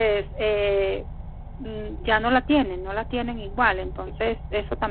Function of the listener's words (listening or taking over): listening